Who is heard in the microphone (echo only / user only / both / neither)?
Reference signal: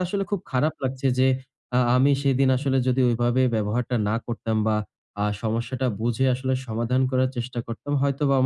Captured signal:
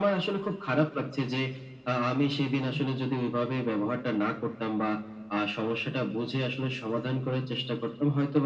echo only